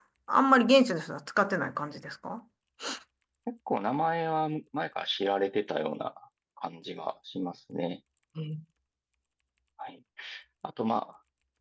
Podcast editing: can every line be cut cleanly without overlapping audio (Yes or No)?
Yes